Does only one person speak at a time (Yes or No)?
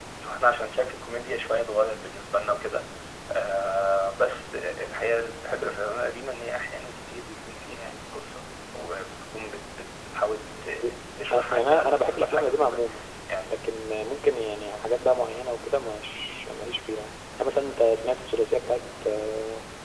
No